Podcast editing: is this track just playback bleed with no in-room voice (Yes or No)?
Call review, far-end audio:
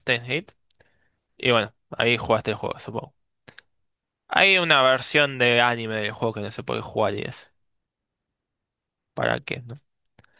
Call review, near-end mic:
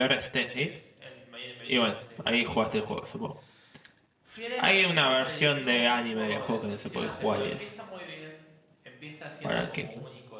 No